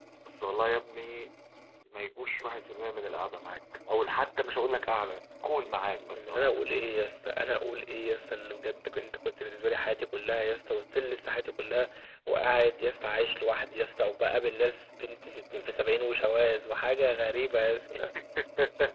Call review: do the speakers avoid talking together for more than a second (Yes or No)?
Yes